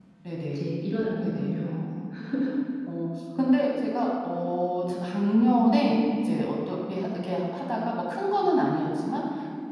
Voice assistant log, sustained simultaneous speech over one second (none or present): none